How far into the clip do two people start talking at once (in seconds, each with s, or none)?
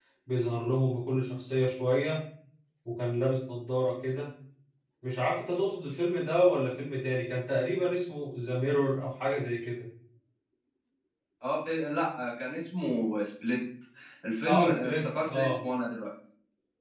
14.4 s